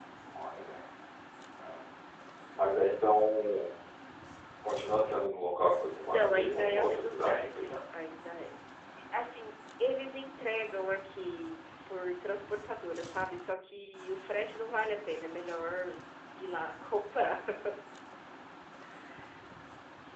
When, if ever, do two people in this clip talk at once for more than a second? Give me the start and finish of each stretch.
6.1-7.7

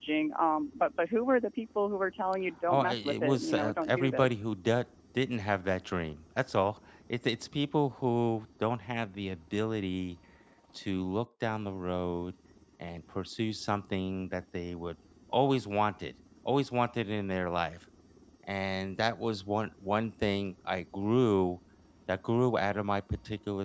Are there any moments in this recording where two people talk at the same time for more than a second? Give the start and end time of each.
2.7-4.4

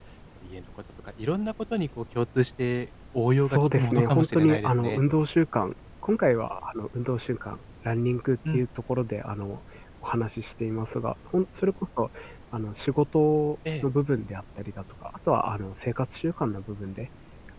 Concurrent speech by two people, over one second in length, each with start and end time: 3.4-5.0

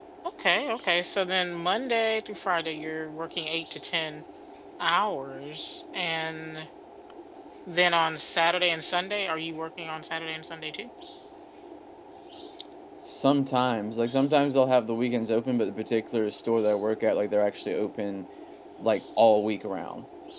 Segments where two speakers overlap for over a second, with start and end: none

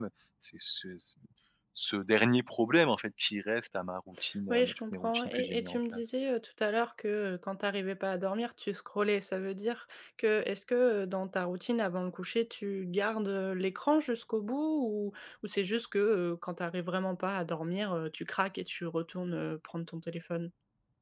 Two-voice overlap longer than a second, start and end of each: 4.5-6.1

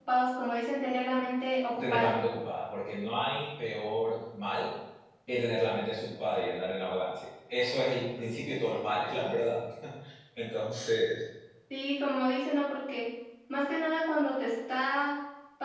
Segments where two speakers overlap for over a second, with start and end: none

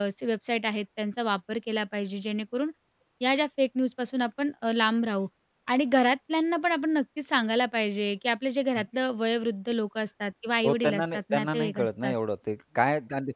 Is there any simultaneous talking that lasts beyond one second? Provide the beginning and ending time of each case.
10.6-12.1

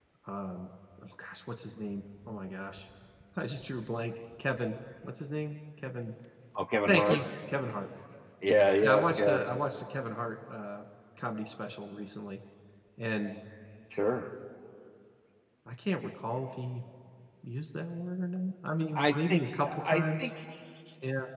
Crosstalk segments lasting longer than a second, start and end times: 18.9-20.3

